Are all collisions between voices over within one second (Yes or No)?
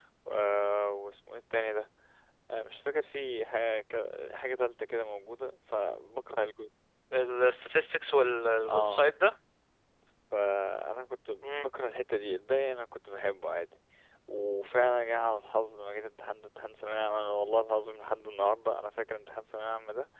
Yes